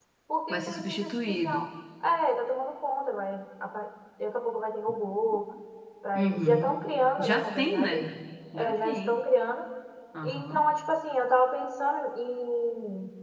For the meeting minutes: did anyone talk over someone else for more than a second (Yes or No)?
Yes